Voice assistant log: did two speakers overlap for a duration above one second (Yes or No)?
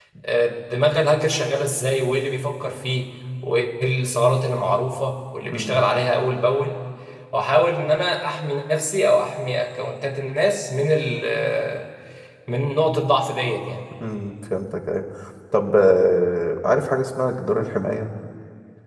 No